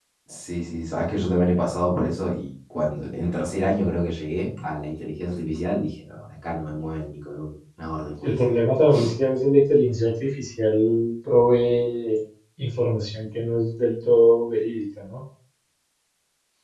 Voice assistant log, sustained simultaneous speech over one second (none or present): none